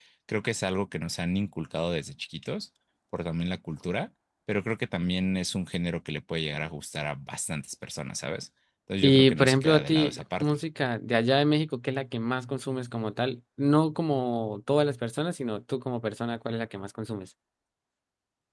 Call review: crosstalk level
present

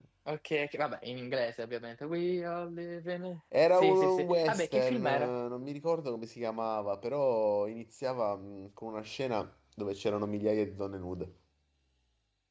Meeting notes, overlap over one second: present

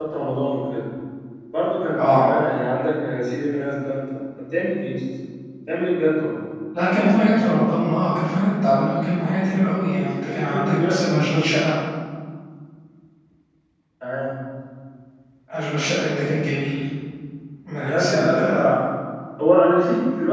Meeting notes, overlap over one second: present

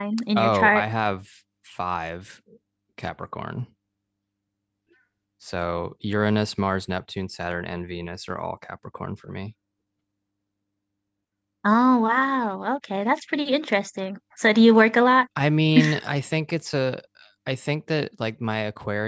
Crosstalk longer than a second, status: none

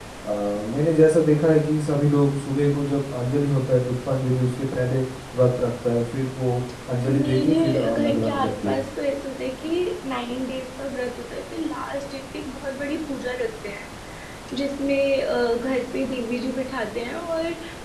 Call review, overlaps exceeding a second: present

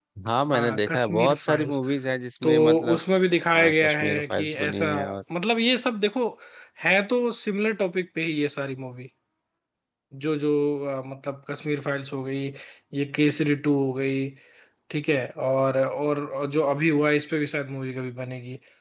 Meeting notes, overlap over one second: present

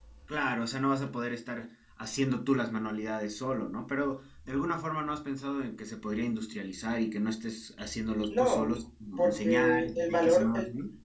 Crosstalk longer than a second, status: present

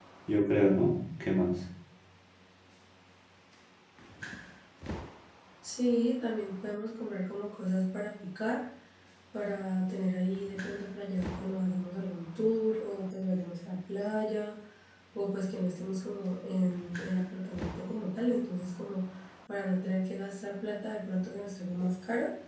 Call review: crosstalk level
none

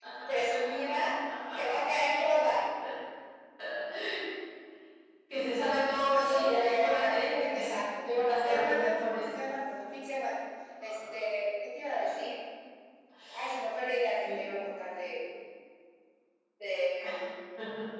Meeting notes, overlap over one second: present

